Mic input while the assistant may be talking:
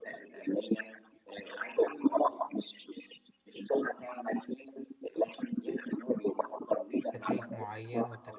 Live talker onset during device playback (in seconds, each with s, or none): 7.1 s